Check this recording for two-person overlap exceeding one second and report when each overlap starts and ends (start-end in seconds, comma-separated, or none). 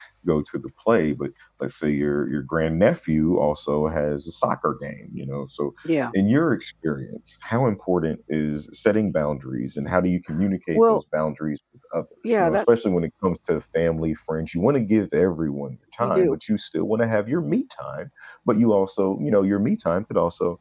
none